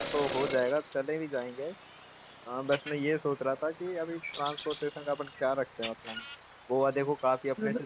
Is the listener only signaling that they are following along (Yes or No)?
Yes